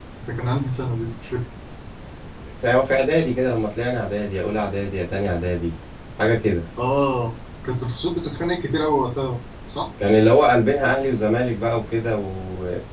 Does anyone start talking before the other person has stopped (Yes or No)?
No